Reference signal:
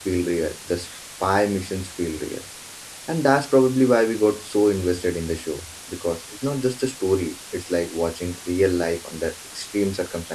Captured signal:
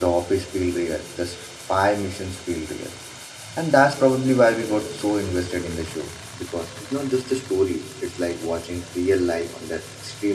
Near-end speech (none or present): none